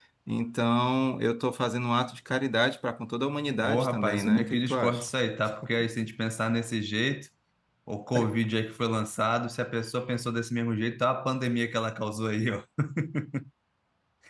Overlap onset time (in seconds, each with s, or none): 3.6 s